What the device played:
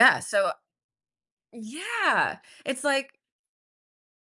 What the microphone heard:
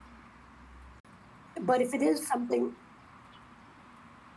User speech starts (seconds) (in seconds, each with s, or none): 1.6 s